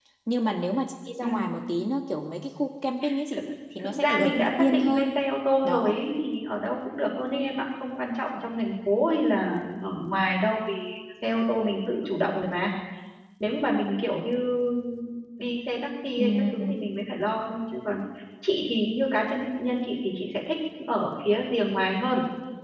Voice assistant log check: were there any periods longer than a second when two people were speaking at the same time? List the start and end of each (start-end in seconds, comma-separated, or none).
3.8-5.2